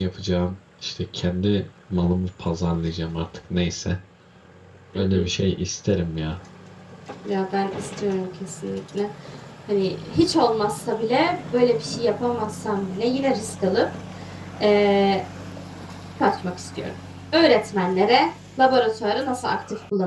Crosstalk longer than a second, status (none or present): none